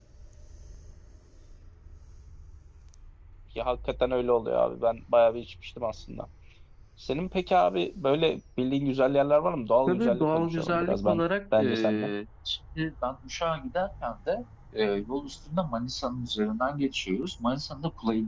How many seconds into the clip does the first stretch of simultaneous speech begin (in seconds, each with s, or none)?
9.9 s